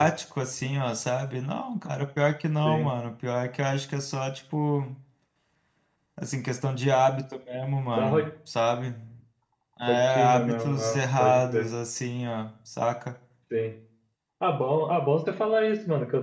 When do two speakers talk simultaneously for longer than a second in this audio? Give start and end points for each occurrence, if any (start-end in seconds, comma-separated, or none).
9.9-11.7